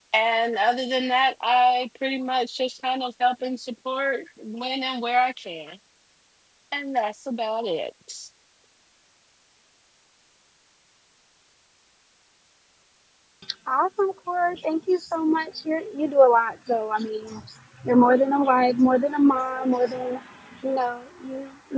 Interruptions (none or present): none